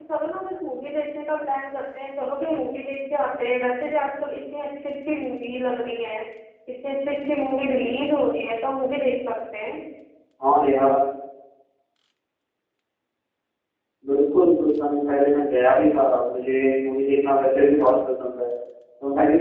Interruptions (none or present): none